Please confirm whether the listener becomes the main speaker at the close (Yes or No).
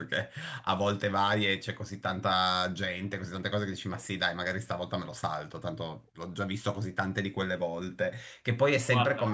No